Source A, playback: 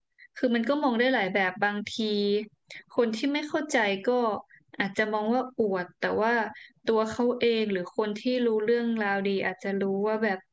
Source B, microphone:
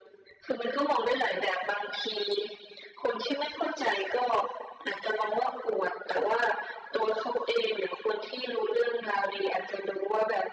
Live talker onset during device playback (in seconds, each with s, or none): none